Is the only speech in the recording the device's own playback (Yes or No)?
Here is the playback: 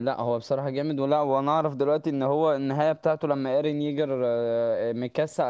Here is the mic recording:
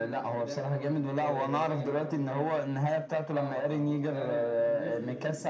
No